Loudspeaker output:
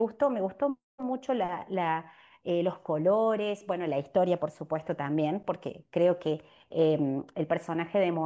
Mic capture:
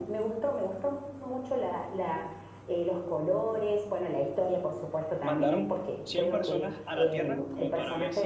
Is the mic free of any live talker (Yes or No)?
No